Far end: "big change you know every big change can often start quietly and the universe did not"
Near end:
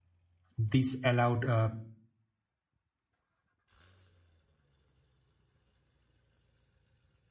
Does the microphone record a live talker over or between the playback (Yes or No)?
Yes